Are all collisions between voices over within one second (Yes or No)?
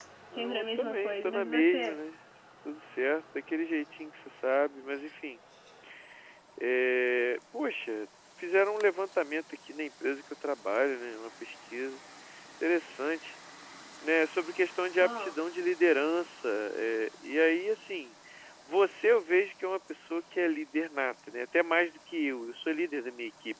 No